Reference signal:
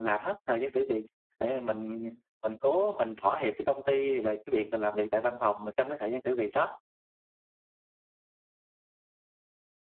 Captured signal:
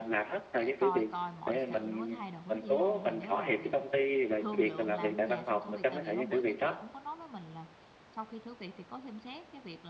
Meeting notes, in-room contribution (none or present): present